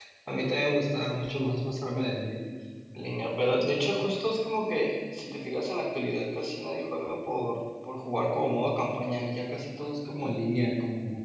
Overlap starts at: none

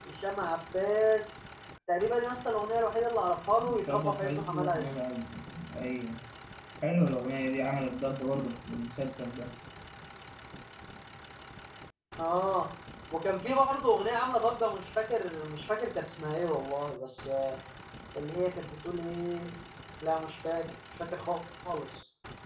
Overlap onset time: 3.6 s

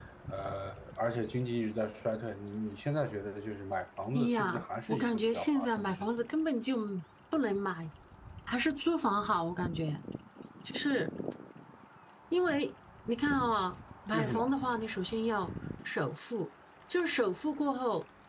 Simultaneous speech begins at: 4.2 s

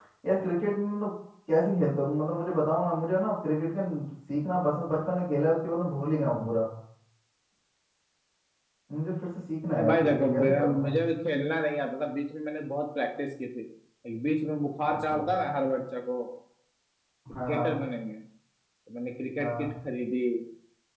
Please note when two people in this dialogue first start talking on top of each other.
9.7 s

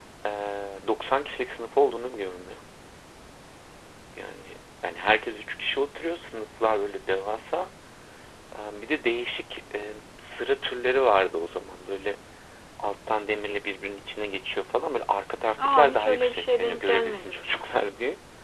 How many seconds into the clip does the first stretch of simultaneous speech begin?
15.6 s

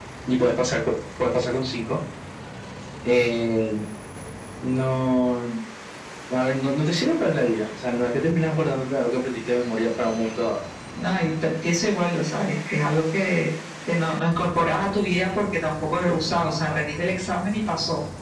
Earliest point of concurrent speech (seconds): none

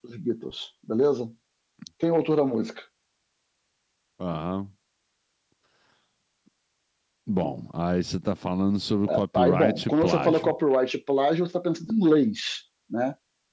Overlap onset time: 9.1 s

